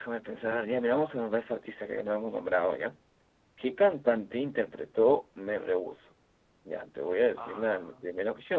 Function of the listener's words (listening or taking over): listening